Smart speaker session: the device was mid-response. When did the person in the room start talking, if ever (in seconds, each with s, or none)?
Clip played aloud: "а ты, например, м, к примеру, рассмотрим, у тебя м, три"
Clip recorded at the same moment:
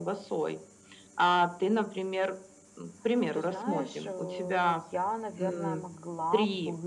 3.1 s